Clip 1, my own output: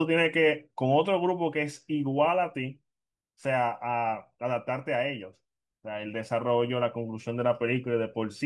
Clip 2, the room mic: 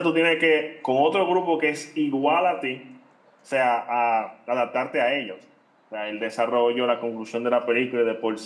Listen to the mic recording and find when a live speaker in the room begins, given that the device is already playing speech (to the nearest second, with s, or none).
none